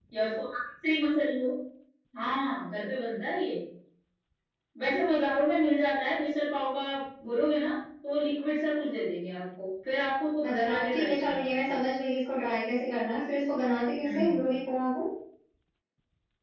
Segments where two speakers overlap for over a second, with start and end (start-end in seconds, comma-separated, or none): 10.5-11.7